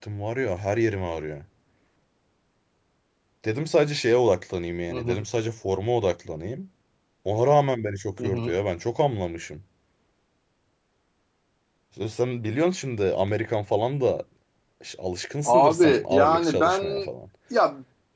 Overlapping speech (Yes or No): Yes